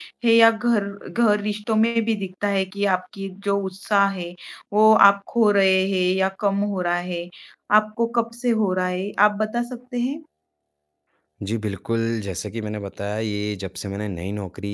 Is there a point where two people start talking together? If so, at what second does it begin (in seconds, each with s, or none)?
none